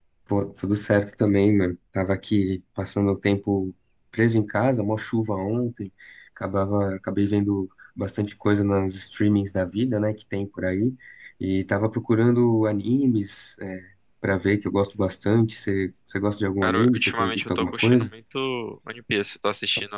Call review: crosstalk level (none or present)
present